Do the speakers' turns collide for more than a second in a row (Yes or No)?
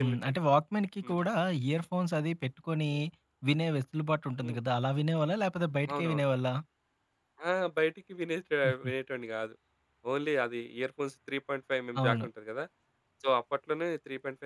No